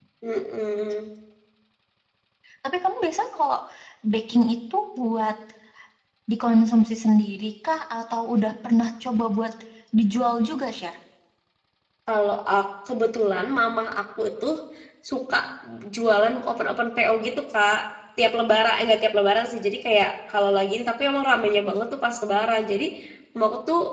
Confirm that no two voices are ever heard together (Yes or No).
Yes